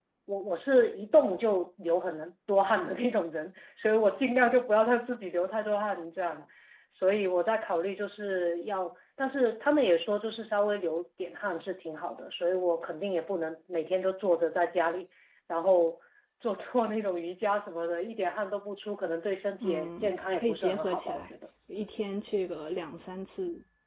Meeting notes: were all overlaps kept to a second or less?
No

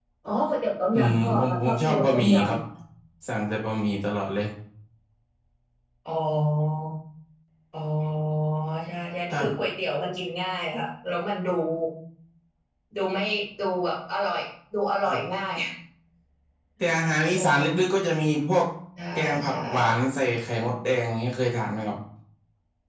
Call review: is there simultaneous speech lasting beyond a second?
Yes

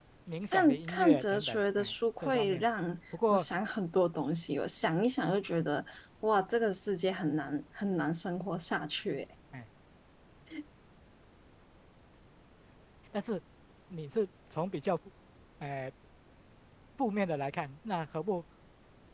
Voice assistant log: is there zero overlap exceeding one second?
No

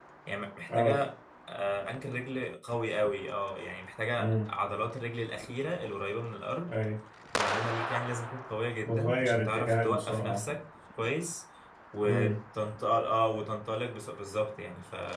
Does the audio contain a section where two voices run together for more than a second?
Yes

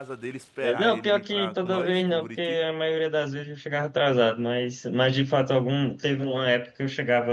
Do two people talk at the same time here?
Yes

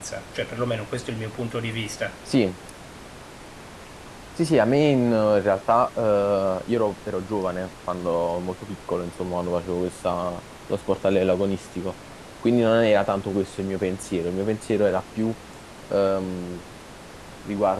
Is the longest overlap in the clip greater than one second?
No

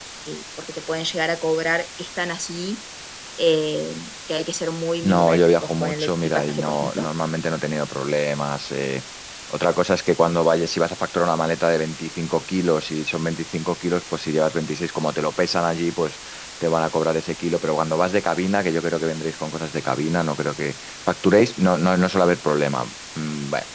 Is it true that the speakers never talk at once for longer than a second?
No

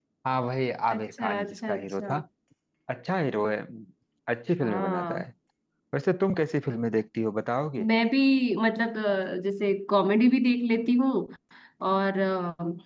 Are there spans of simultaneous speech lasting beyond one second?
Yes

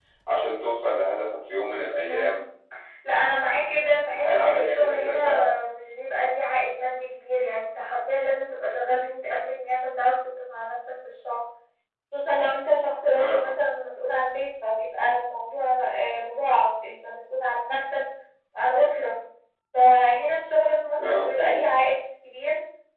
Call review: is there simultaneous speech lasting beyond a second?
Yes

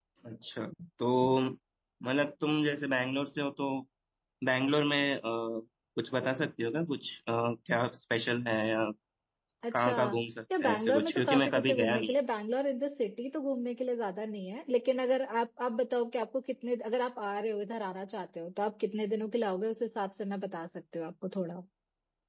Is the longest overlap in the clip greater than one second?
Yes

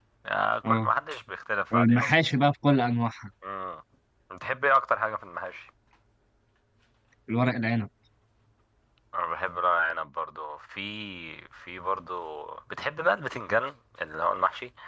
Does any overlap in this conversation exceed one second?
No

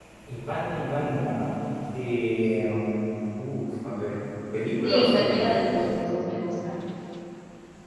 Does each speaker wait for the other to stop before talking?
No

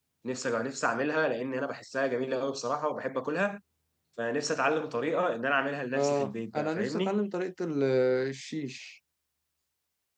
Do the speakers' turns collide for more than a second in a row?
Yes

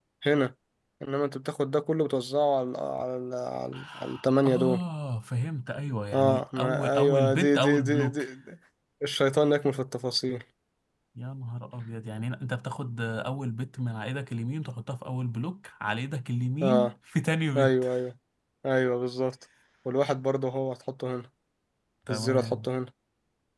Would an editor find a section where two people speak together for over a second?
Yes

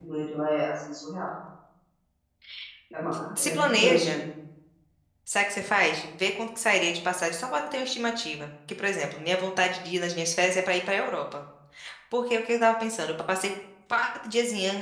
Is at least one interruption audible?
Yes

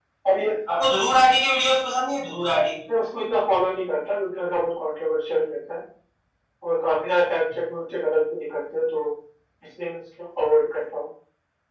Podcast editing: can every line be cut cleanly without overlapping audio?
Yes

